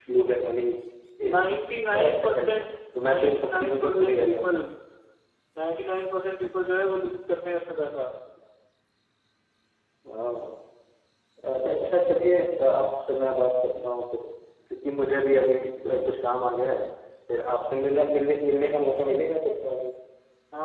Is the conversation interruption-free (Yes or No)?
No